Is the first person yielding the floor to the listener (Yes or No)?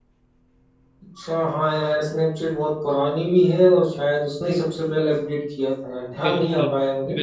Yes